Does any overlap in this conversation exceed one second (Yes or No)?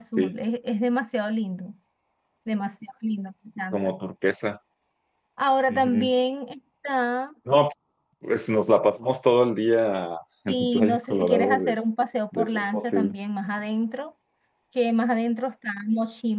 Yes